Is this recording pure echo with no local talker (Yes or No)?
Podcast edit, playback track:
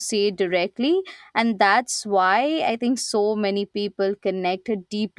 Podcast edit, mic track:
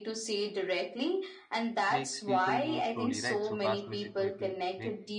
No